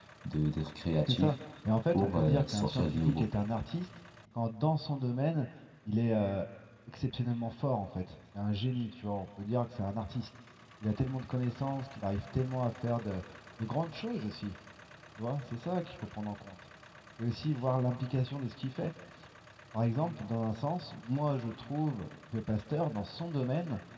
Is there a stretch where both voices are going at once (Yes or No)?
Yes